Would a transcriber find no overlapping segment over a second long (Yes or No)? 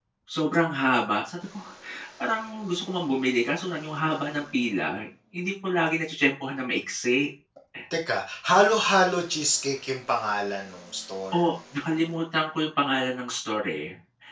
Yes